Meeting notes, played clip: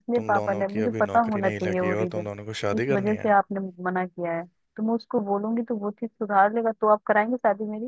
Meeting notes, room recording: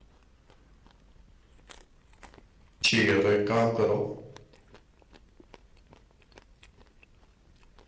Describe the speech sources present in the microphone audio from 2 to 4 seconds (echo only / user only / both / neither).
user only